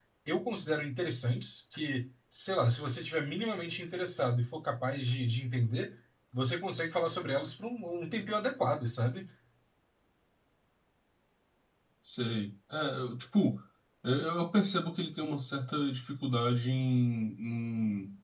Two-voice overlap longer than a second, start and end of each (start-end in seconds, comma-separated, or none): none